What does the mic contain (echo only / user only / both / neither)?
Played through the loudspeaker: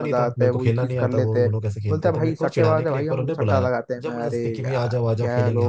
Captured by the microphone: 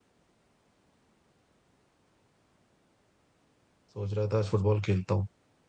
user only